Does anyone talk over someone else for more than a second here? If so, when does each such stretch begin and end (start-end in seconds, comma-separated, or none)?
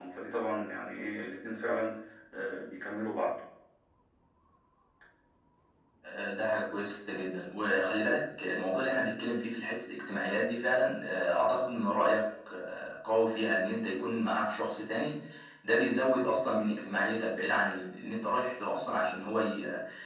none